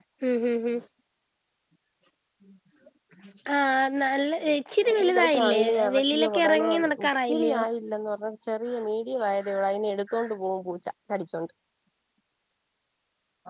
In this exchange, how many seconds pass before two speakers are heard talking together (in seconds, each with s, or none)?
4.8 s